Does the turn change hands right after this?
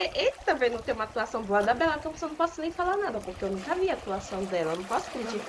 Yes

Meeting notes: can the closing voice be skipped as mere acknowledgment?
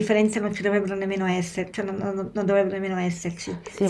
No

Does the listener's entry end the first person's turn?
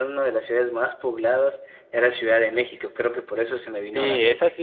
Yes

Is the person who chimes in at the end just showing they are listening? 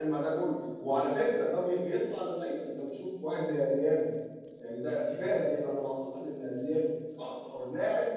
Yes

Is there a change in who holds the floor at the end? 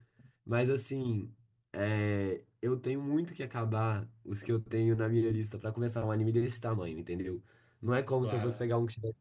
No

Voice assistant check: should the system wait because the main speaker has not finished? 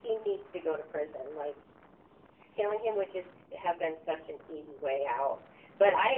Yes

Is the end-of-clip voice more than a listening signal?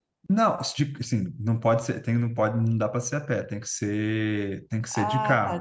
Yes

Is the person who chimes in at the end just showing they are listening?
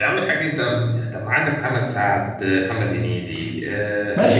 No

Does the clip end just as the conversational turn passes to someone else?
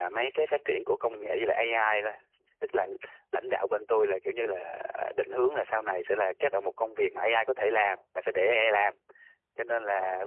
No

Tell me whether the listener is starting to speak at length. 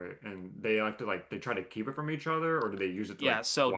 Yes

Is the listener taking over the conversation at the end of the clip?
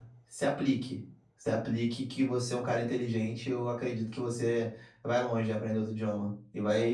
No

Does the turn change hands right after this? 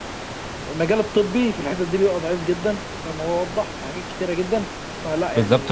Yes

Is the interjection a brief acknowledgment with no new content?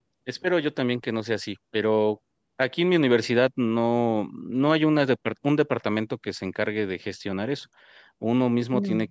Yes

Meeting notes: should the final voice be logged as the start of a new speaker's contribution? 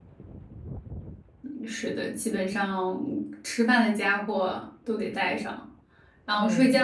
No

